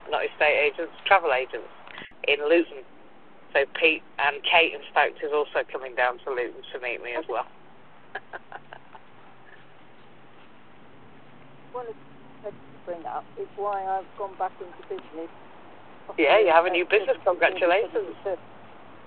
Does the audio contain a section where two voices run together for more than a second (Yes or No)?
Yes